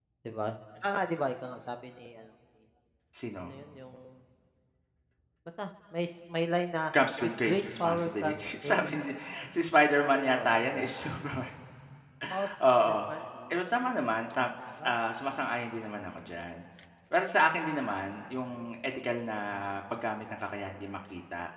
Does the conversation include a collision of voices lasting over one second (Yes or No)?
Yes